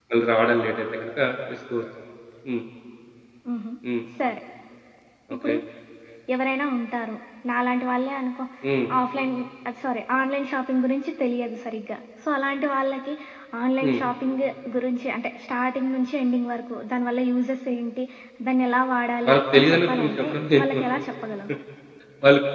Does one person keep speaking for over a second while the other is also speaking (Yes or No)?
Yes